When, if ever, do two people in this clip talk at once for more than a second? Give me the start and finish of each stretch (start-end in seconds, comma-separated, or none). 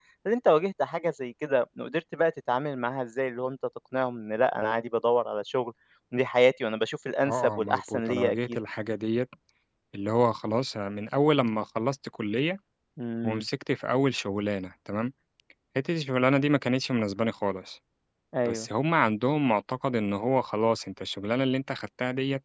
7.2-8.6